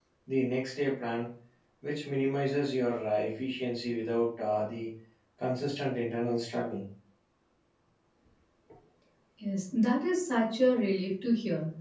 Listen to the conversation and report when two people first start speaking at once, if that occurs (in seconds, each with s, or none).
none